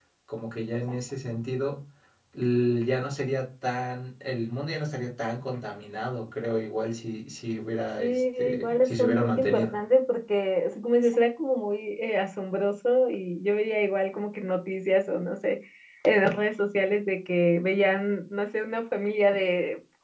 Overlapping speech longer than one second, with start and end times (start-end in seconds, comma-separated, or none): 8.0-9.8